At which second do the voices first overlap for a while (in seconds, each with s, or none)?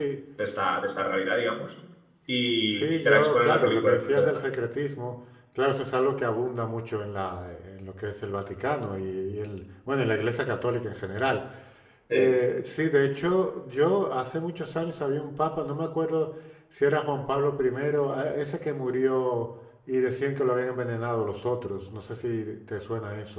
2.8 s